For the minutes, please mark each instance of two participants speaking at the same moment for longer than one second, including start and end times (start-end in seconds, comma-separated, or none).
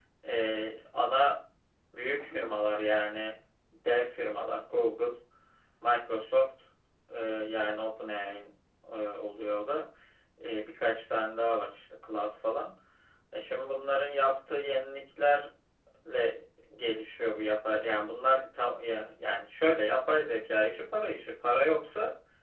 none